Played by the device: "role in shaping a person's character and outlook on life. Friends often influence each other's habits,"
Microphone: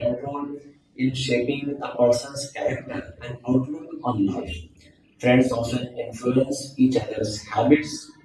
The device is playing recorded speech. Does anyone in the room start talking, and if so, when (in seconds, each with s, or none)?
none